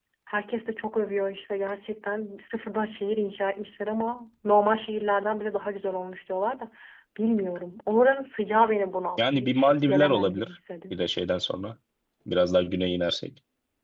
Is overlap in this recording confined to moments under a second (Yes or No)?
No